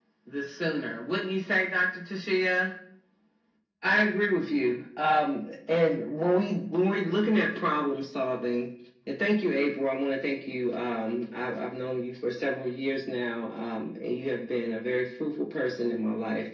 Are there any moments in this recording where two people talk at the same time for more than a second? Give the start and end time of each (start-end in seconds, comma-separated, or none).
none